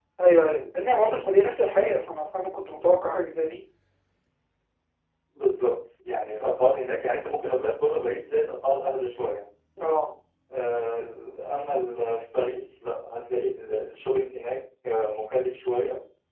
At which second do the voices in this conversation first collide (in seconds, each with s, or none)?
none